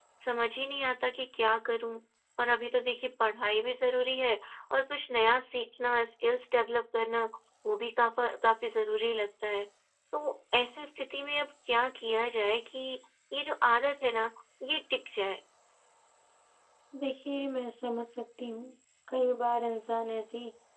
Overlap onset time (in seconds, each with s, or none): none